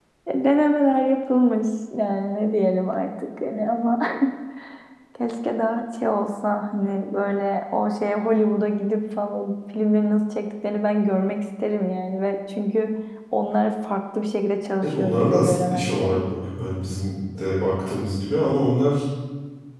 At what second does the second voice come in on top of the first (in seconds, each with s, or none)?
14.8 s